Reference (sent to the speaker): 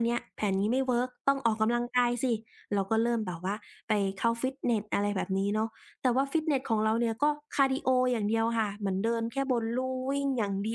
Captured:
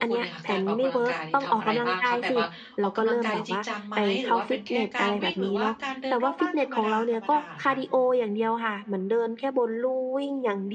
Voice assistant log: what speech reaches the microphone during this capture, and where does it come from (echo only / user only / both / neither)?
both